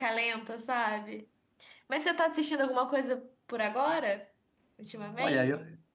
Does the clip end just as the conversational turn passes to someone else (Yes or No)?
Yes